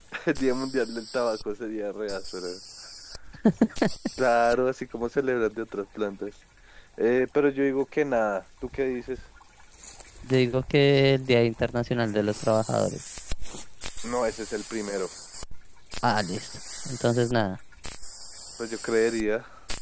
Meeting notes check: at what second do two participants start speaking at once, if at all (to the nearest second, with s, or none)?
none